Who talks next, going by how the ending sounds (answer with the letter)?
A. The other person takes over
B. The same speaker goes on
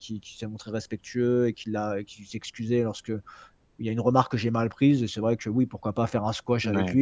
B